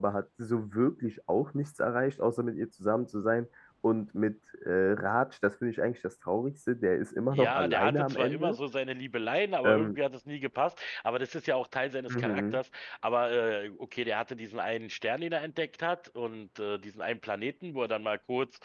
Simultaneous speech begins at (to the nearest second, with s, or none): 7 s